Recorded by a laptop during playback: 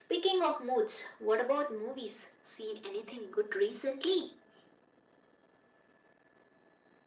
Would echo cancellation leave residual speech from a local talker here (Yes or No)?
No